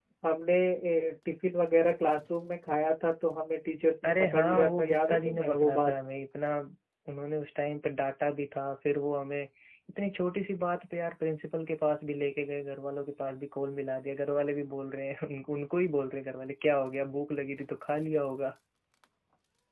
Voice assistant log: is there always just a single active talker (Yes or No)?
No